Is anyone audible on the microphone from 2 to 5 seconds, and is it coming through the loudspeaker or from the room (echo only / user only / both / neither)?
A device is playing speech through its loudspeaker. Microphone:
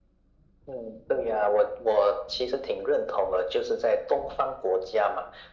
echo only